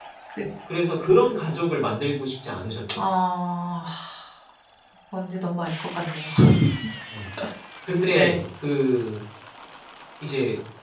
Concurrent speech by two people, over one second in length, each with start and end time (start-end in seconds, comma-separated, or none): none